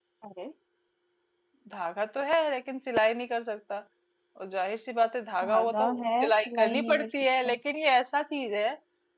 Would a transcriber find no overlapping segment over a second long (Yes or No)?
No